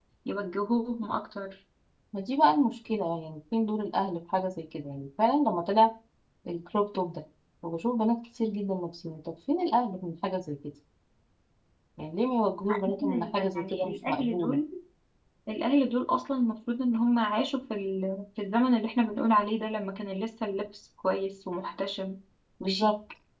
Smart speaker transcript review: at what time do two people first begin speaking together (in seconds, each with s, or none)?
13.0 s